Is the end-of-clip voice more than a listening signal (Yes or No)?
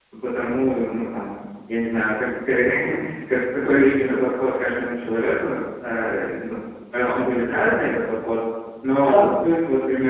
No